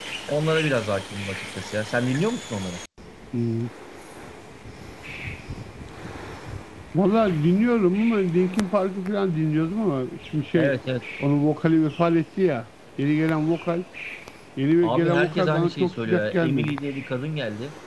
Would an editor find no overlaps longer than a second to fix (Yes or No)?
No